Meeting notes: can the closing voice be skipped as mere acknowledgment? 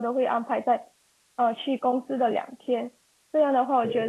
Yes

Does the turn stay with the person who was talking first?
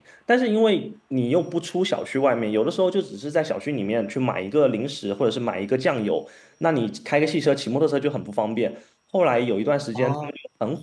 Yes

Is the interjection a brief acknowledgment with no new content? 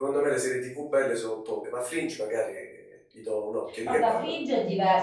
No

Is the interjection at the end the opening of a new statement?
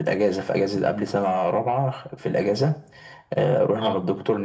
No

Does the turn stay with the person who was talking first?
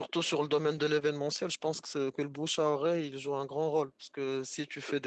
Yes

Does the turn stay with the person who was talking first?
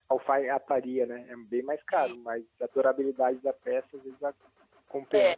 No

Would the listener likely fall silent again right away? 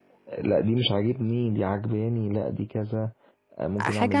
No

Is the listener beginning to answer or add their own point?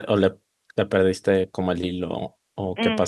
Yes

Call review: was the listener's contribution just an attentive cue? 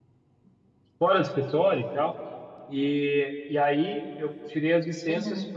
Yes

